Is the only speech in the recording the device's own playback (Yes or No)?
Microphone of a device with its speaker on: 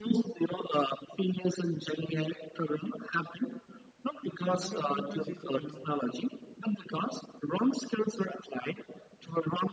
No